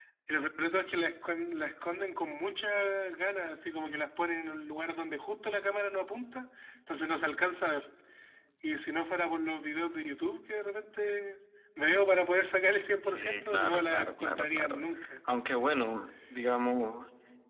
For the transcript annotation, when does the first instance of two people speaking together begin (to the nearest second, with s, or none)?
13 s